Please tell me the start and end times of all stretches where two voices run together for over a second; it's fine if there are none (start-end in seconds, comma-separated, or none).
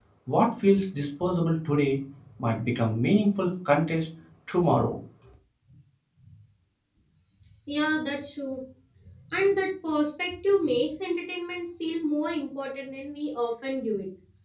none